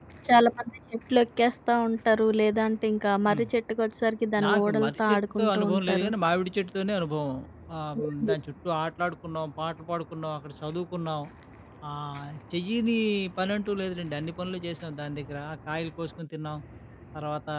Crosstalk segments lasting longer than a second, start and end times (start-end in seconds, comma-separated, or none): 4.4-6.1